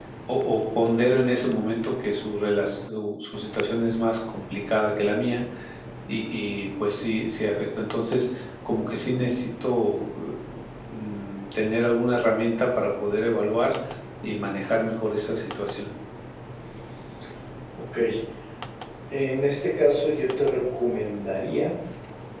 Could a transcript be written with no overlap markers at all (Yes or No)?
Yes